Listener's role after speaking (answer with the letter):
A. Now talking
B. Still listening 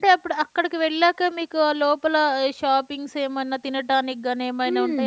A